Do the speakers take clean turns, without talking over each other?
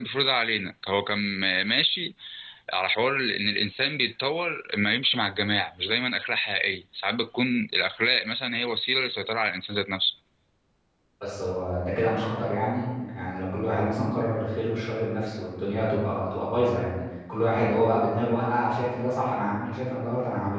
Yes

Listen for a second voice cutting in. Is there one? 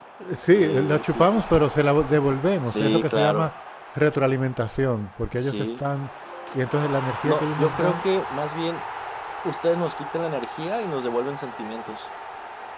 Yes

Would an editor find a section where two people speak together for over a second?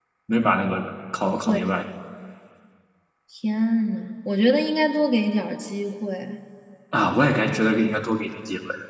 No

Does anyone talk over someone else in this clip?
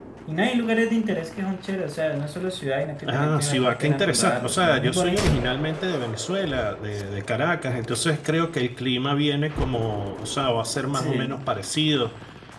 Yes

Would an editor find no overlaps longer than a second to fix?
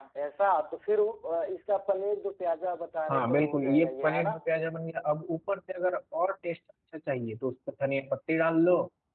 No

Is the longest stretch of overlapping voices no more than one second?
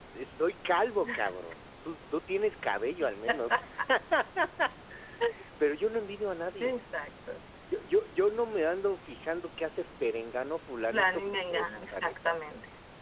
No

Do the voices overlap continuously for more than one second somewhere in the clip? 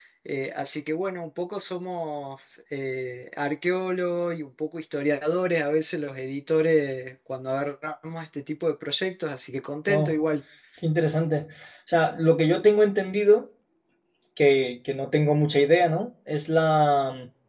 No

